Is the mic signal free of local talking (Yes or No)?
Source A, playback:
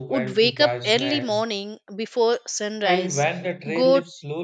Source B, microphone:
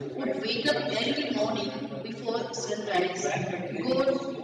No